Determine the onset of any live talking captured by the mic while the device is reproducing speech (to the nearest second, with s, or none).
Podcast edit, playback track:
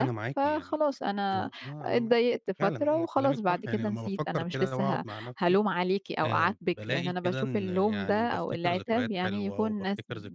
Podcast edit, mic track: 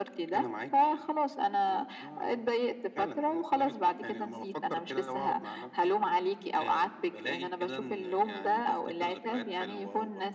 none